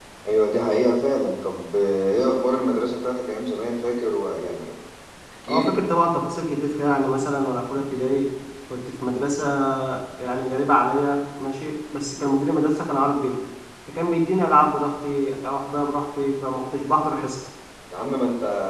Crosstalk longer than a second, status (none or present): none